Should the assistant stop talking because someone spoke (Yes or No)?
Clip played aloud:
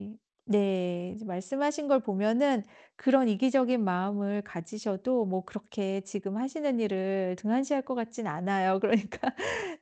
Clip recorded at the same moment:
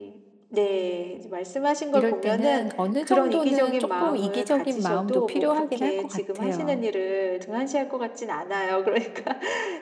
Yes